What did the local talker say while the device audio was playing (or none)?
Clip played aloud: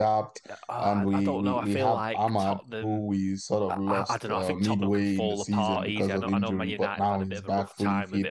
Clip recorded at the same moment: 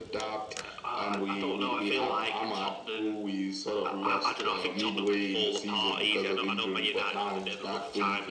none